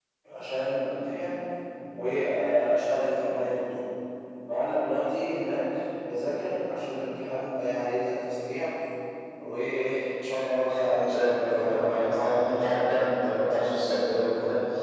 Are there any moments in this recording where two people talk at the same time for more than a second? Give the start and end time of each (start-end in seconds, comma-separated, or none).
10.9-12.6